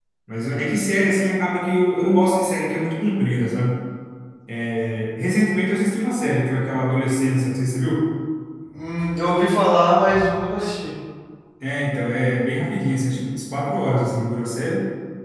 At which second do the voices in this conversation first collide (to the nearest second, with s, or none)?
none